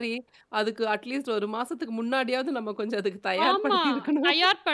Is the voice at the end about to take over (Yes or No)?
Yes